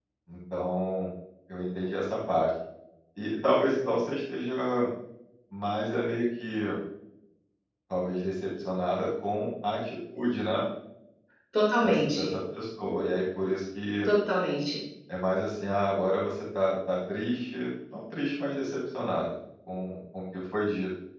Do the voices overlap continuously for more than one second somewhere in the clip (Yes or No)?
No